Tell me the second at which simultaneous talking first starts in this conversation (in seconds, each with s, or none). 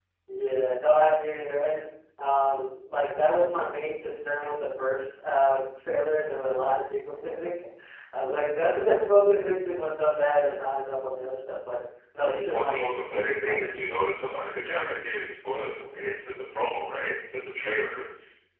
12.5 s